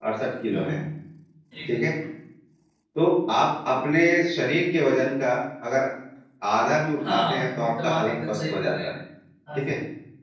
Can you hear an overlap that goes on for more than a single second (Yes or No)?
Yes